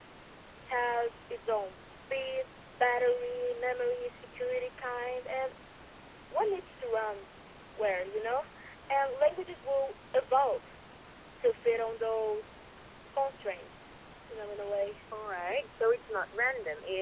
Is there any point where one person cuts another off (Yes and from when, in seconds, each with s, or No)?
No